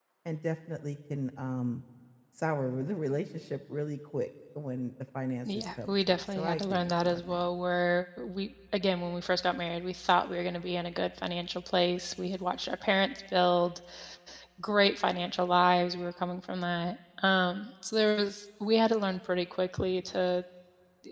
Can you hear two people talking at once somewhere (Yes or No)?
Yes